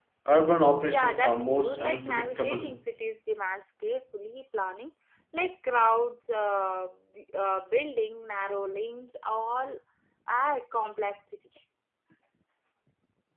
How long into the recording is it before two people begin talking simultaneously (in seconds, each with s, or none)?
0.8 s